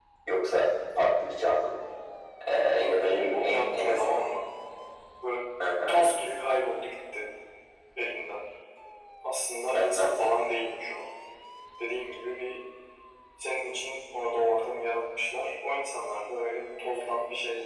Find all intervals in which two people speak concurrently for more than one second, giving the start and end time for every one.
2.8-4.0

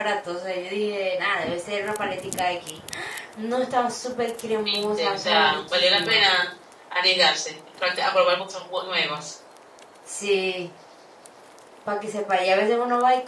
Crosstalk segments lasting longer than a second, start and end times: 4.7-6.2

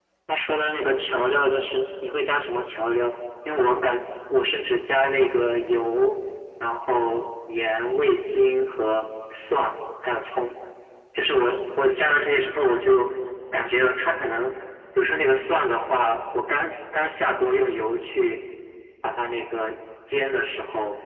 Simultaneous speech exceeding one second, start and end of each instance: none

